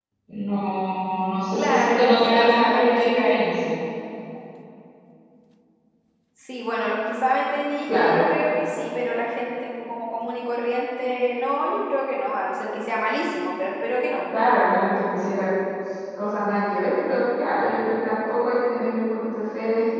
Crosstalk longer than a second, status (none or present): present